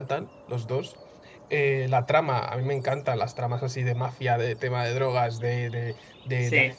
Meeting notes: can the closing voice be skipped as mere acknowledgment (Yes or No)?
Yes